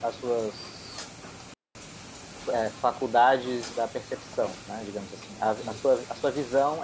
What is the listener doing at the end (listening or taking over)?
listening